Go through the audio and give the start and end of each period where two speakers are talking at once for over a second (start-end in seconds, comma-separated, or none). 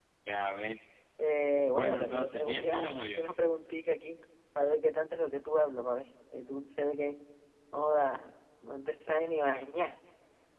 1.7-3.2